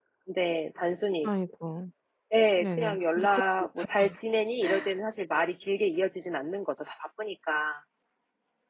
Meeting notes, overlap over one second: present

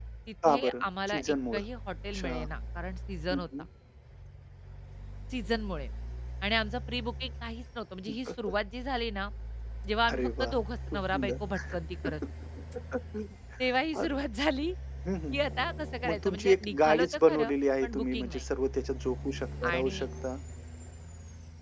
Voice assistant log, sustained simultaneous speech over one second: present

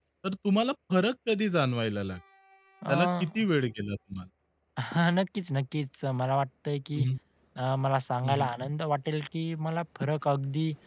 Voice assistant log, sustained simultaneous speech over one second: none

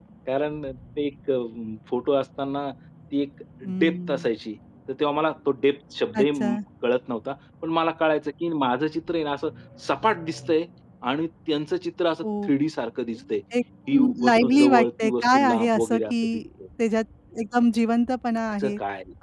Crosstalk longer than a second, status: present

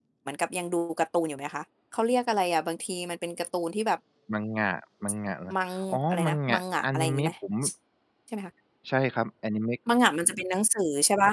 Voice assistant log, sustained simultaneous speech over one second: present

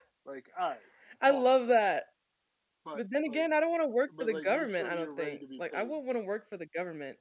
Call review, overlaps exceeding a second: present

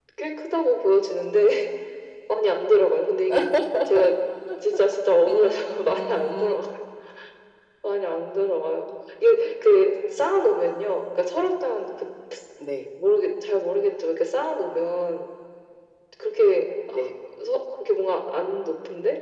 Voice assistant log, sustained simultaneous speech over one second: present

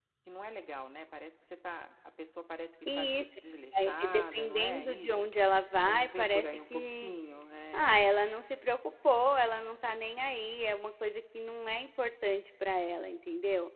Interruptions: present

